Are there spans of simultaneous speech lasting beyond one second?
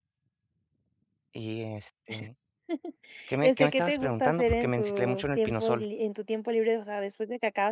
Yes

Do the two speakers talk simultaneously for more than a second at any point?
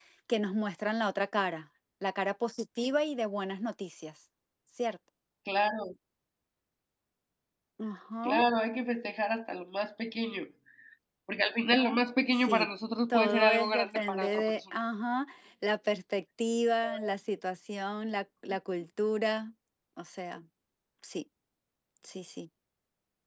Yes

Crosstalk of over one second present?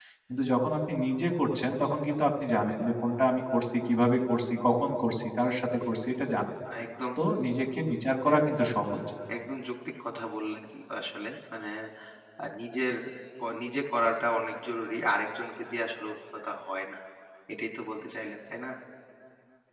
No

